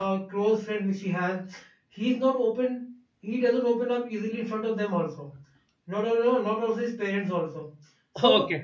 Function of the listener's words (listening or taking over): listening